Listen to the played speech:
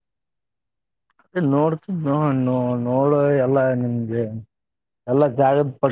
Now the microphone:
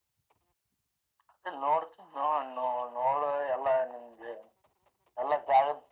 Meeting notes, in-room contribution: none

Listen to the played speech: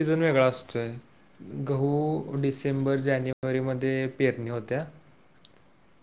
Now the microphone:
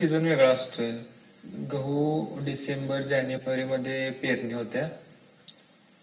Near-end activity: none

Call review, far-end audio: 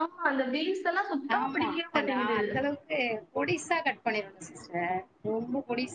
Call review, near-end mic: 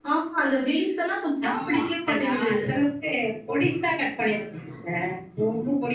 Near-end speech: none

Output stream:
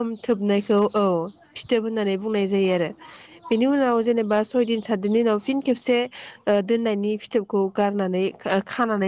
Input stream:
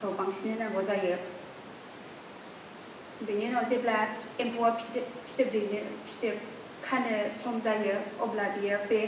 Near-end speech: present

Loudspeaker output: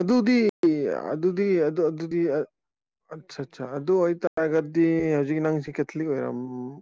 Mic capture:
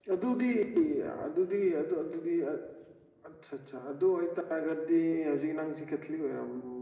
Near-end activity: none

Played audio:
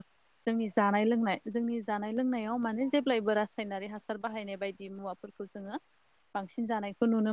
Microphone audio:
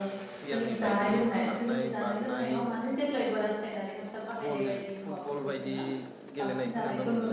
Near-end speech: present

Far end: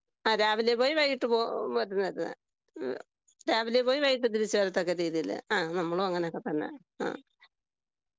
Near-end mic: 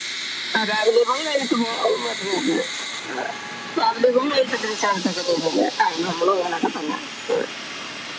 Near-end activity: none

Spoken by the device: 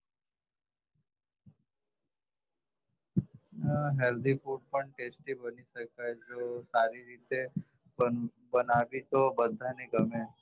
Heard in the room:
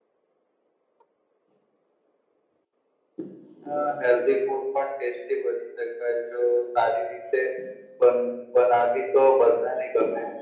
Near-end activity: none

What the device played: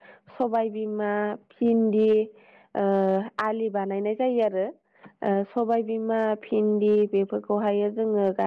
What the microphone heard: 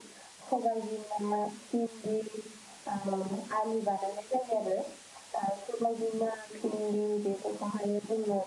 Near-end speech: none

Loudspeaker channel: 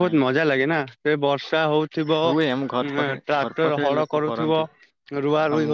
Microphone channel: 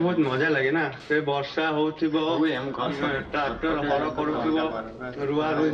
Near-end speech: present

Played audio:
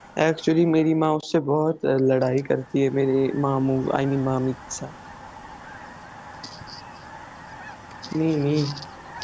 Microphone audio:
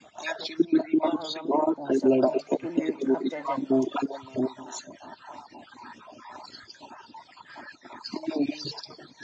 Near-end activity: present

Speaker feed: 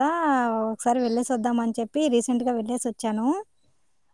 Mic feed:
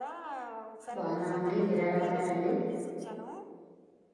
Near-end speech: present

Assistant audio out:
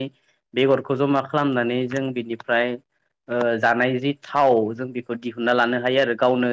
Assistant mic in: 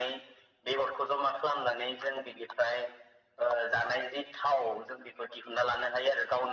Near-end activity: none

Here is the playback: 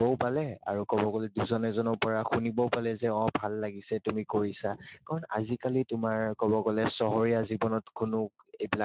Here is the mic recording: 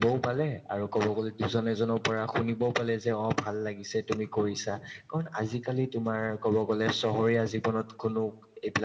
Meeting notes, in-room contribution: none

